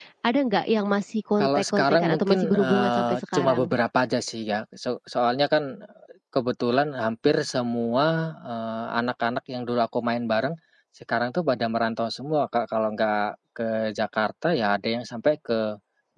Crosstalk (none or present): present